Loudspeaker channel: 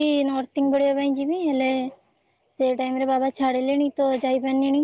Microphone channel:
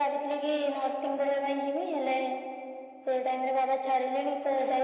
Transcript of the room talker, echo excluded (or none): none